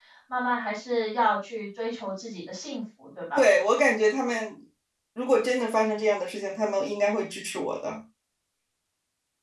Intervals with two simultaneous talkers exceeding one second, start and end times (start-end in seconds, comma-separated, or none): none